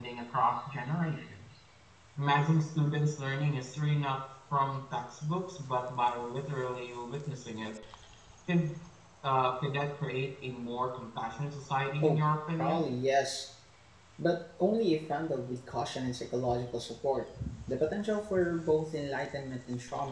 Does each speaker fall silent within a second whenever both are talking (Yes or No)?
Yes